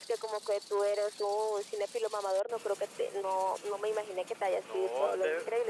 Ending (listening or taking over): taking over